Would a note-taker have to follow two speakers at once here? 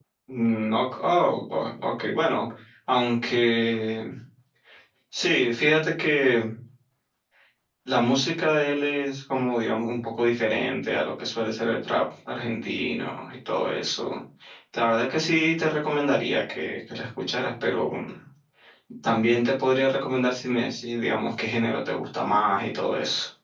No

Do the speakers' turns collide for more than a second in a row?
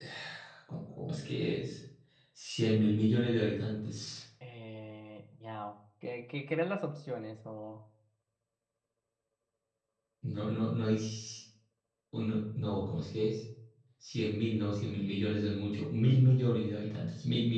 No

